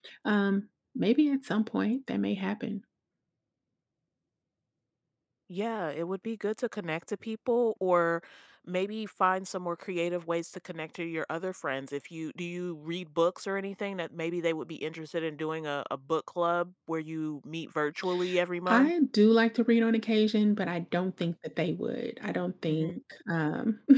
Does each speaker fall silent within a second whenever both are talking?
Yes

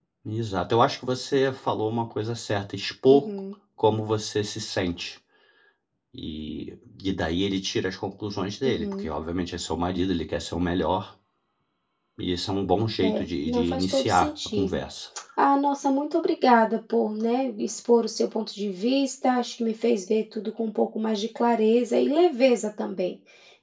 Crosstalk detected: Yes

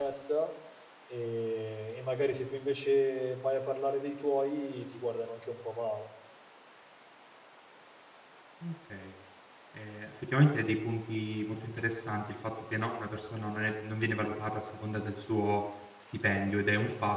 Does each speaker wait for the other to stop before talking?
Yes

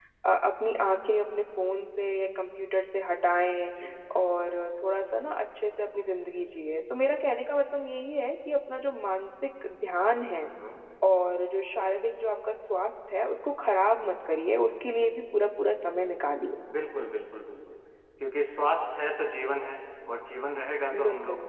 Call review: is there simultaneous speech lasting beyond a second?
No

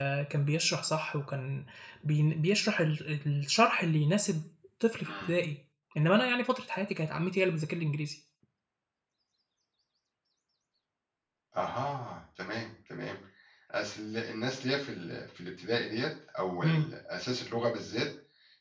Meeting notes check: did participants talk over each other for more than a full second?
No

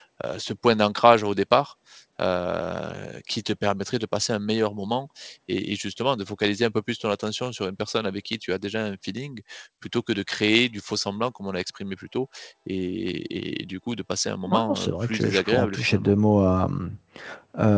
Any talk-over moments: Yes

